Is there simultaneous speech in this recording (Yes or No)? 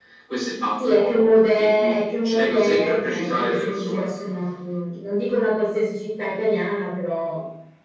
Yes